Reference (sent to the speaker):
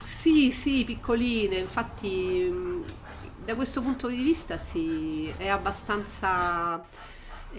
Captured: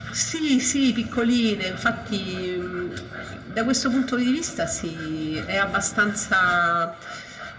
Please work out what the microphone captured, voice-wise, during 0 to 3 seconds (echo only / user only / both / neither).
echo only